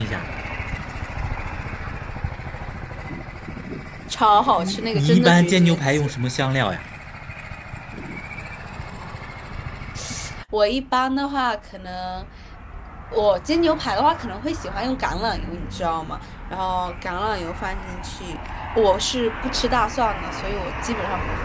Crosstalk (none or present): present